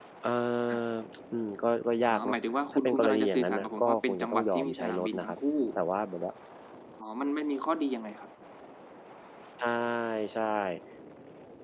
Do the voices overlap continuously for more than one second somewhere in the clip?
Yes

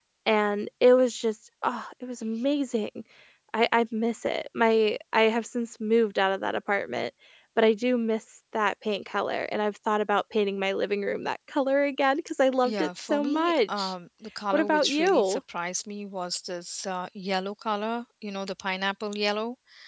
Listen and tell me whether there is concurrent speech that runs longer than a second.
Yes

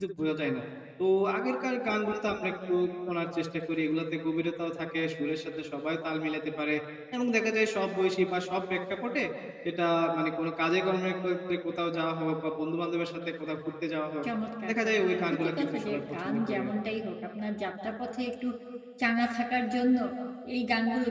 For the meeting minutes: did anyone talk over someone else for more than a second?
Yes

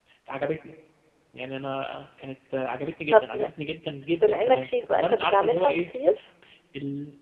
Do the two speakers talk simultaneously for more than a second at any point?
Yes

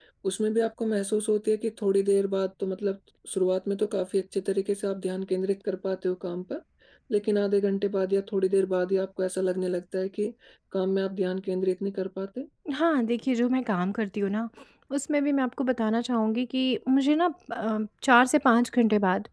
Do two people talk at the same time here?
No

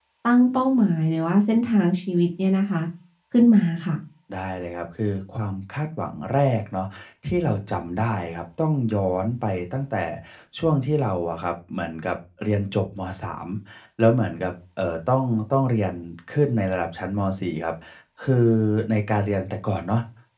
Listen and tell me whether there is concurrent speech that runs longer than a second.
No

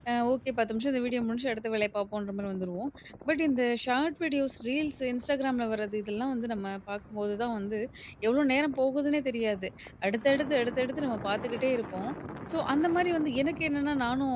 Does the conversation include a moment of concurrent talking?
No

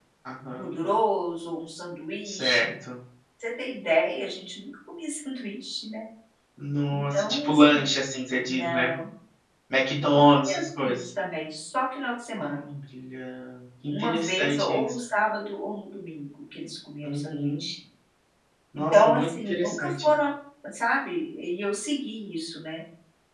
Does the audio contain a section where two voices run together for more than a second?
Yes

